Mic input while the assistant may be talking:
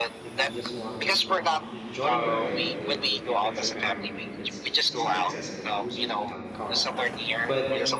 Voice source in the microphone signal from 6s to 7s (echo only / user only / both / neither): both